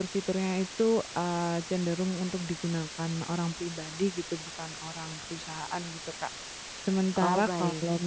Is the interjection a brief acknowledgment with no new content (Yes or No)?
Yes